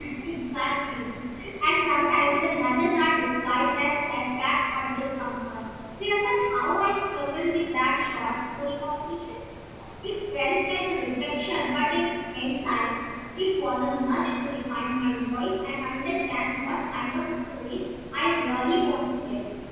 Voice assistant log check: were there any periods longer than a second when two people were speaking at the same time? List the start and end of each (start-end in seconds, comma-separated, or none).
none